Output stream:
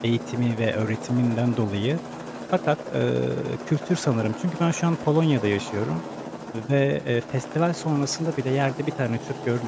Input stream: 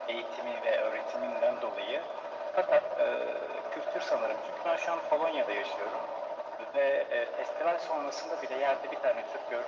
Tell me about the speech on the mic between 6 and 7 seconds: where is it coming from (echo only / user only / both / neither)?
echo only